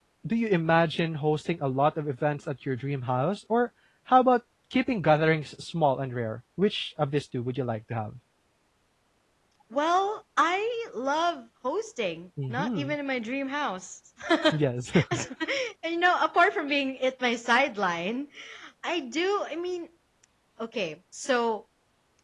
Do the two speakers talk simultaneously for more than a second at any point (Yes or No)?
No